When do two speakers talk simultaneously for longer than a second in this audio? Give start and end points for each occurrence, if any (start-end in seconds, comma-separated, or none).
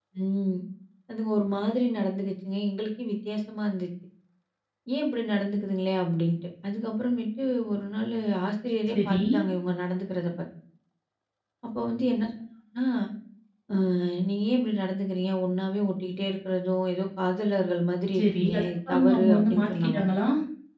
18.2-20.0